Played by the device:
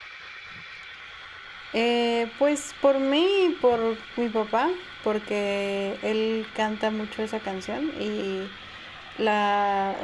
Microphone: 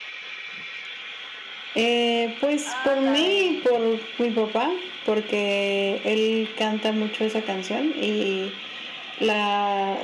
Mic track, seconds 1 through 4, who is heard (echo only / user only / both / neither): both